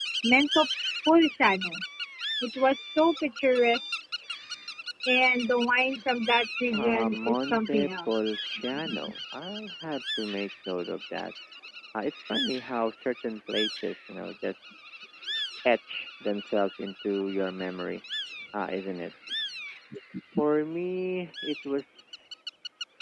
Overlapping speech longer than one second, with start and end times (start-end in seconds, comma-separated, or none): 6.7-8.1